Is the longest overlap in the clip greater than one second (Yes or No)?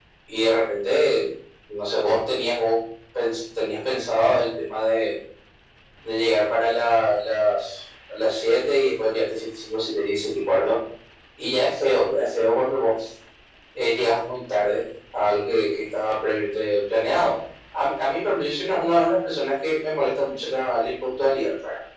No